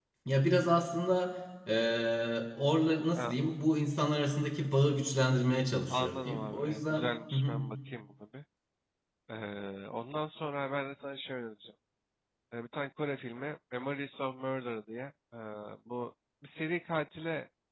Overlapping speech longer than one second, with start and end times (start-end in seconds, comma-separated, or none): 5.9-7.5